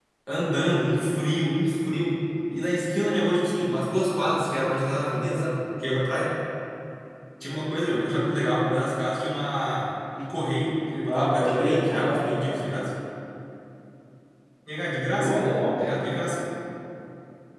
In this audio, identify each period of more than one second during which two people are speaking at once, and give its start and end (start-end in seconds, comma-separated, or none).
11.1-12.3